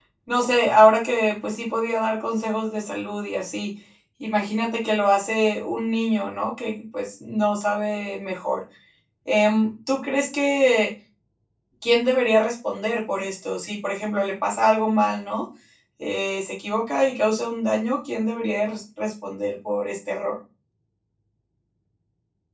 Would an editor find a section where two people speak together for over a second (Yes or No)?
No